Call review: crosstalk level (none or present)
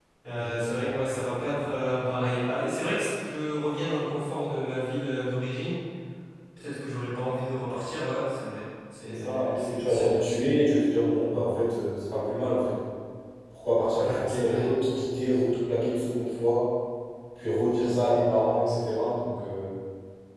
present